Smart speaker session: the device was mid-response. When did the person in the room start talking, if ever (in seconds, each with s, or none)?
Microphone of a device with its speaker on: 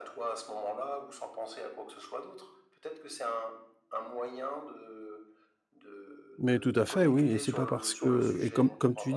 6.4 s